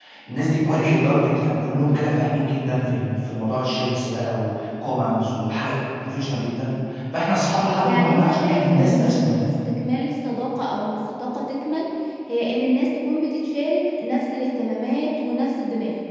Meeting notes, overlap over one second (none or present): present